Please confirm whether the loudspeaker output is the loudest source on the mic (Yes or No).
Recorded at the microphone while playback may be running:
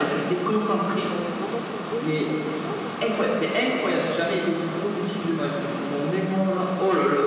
Yes